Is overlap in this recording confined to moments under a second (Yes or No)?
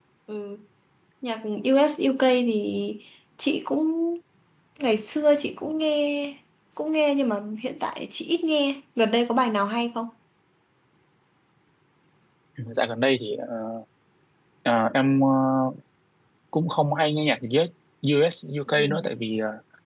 Yes